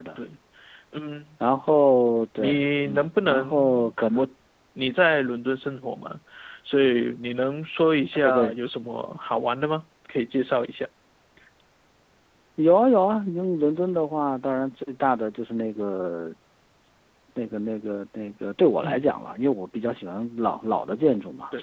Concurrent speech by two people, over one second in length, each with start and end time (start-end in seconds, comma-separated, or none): 2.4-4.2